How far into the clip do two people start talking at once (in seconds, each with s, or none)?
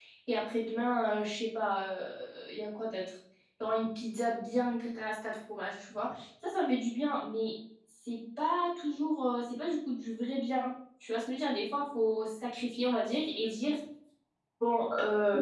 none